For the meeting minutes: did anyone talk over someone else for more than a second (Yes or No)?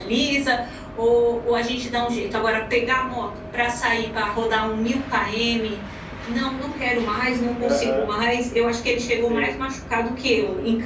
No